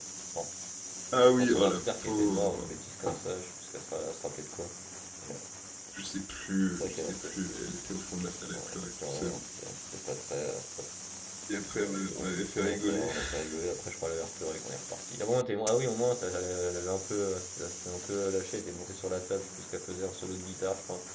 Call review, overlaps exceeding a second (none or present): present